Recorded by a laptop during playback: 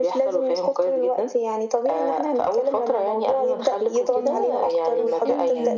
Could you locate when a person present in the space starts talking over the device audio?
4.1 s

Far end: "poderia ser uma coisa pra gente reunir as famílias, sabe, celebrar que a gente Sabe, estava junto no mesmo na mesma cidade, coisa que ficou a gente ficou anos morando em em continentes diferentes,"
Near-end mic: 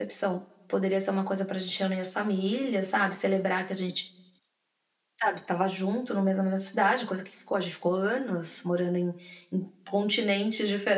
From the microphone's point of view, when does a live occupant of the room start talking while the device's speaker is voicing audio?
none

